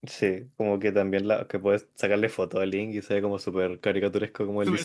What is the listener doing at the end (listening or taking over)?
taking over